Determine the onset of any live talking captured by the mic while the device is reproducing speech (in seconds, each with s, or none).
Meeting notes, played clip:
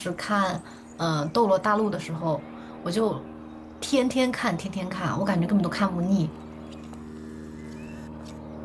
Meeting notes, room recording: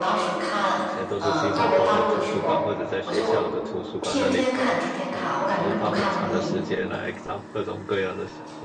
0.7 s